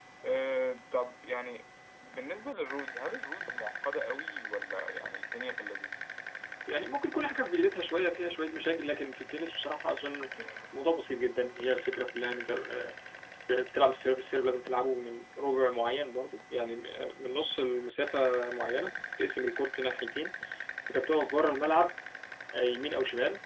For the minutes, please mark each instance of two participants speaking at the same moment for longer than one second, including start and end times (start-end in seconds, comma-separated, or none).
none